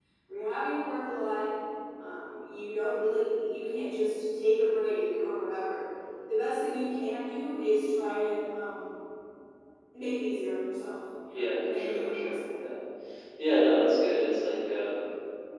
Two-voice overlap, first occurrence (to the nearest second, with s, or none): 11 s